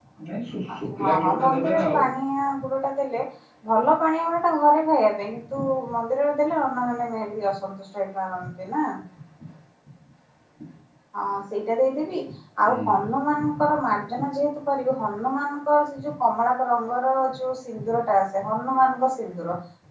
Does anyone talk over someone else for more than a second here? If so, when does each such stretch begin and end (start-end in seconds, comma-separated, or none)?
0.7-2.0